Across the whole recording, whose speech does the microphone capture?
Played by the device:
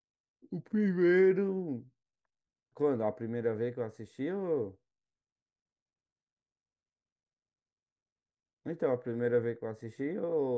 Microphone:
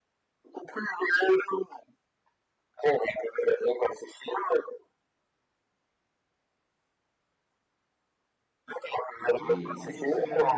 both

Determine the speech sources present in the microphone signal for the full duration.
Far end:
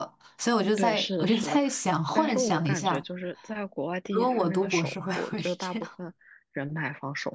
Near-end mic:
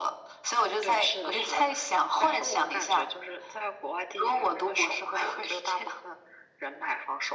echo only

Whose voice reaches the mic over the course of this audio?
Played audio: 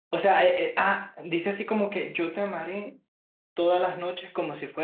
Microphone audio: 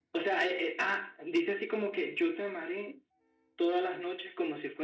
echo only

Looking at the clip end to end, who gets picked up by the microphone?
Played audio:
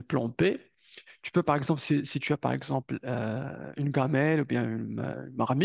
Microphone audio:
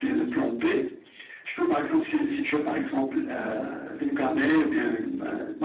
echo only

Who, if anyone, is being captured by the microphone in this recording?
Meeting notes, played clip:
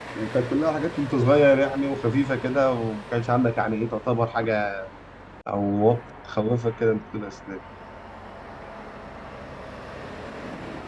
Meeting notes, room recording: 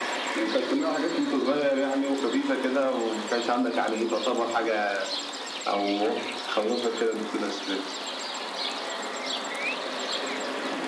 echo only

